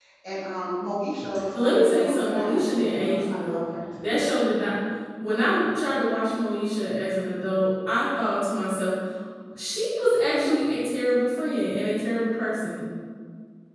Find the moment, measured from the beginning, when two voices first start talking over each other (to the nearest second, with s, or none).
2 s